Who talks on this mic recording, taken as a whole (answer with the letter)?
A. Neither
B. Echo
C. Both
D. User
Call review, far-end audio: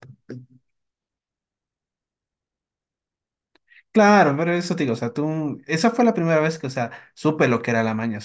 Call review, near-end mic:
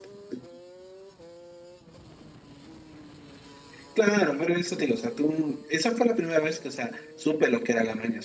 B